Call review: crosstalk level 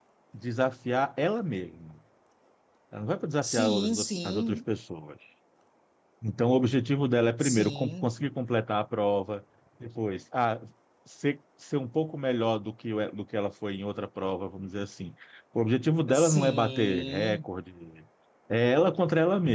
present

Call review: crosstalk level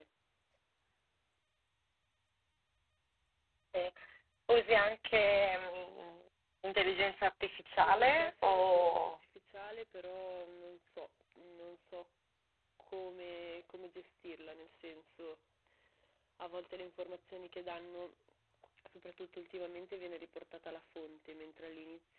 present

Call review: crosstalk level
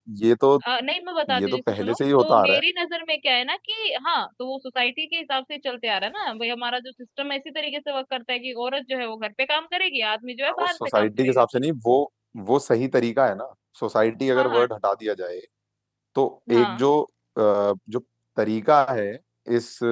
present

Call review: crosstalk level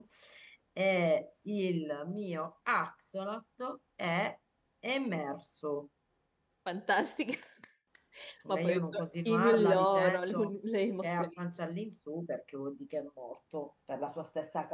present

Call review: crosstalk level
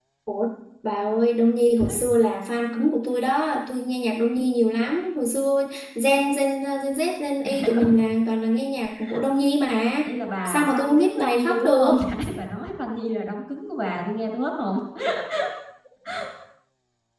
present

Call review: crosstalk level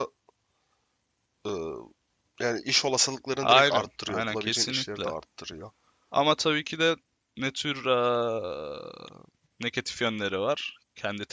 present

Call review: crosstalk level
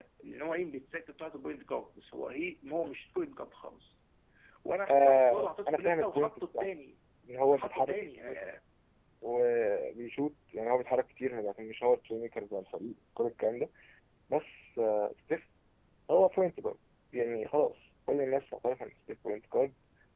present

